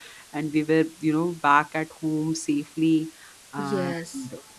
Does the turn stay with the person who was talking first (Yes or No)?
Yes